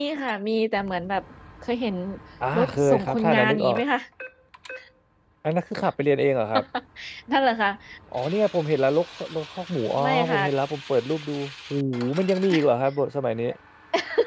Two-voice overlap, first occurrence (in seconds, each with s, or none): 2.6 s